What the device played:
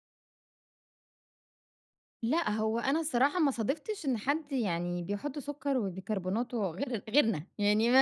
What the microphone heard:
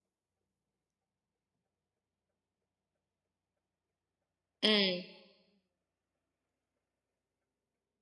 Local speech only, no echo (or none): إمم.